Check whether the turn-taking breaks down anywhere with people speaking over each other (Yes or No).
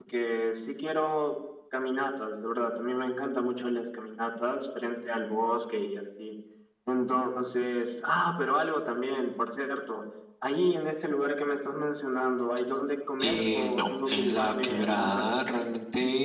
Yes